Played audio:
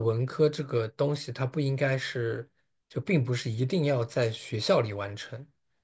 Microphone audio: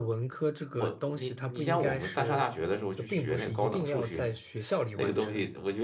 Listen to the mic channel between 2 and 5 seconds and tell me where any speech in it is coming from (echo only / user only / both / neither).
both